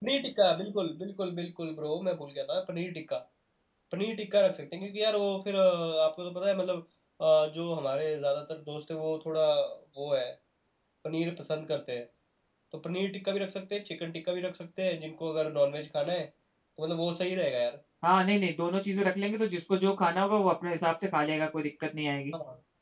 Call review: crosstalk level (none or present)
none